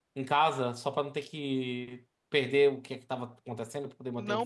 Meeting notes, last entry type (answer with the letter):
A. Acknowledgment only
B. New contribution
B